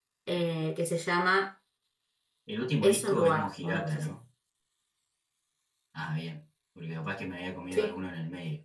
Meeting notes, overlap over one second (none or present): present